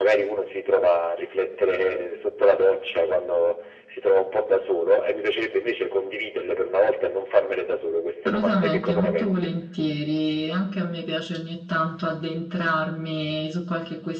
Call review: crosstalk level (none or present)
present